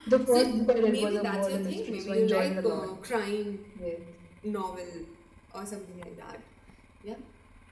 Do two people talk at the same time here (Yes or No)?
Yes